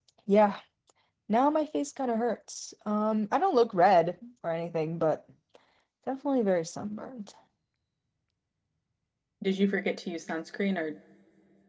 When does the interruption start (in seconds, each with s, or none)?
none